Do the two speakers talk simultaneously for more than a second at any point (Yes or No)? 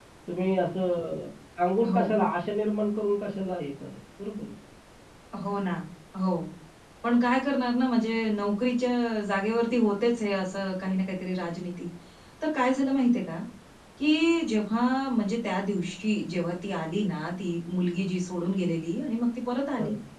No